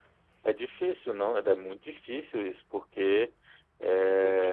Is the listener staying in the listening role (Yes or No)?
Yes